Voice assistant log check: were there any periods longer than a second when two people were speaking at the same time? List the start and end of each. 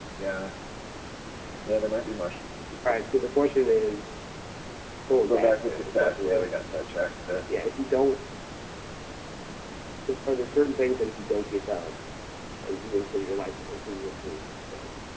5.3-6.5

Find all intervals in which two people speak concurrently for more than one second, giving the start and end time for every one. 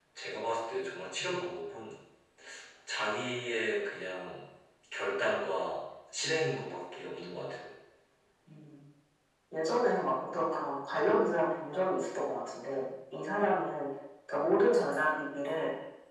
none

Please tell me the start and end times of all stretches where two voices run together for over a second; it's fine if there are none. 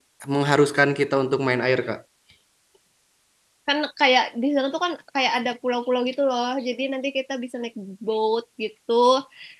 none

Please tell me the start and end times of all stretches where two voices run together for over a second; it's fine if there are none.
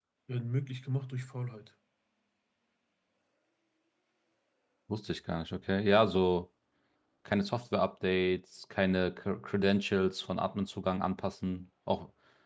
none

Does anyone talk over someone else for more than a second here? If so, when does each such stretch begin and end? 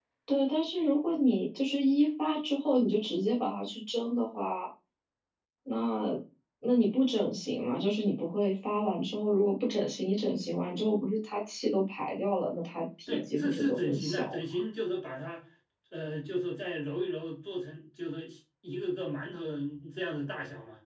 13.1-14.6

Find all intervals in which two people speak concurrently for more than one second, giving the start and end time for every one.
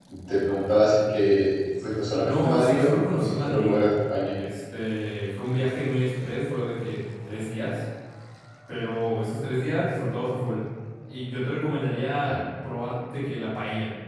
2.2-3.8

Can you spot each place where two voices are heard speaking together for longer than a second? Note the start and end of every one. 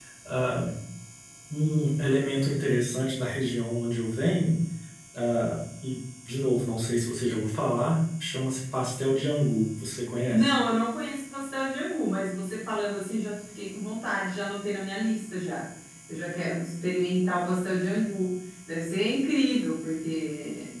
none

